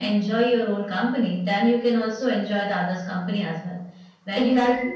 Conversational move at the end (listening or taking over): listening